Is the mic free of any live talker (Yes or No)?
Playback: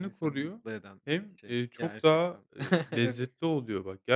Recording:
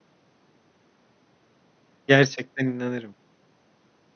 No